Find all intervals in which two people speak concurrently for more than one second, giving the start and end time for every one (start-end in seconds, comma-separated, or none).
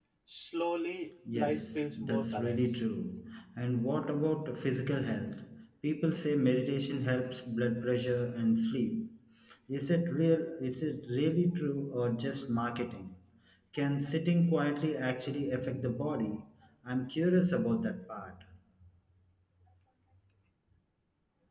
1.3-2.8